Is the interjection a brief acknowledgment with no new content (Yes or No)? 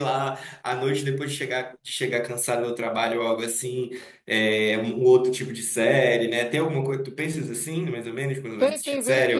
No